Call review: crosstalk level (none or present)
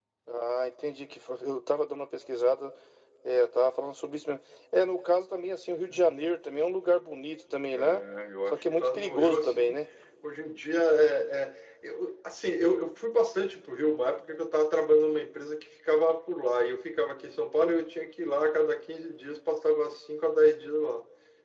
present